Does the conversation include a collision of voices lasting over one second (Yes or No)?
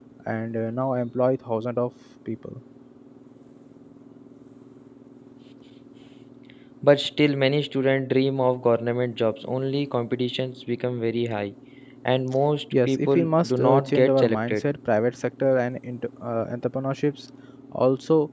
Yes